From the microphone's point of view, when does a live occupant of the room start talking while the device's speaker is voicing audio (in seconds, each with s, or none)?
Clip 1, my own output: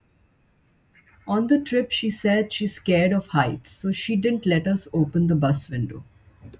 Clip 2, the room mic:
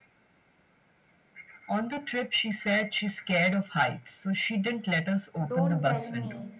5.5 s